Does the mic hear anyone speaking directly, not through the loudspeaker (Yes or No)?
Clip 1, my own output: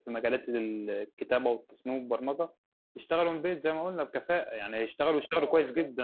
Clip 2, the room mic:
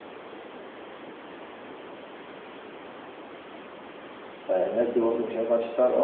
Yes